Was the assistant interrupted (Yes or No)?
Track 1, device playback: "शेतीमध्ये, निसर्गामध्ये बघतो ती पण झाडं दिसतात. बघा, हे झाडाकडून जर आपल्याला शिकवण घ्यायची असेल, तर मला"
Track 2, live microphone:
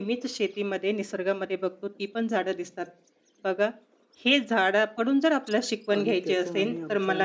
Yes